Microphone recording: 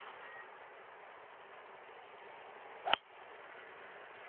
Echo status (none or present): none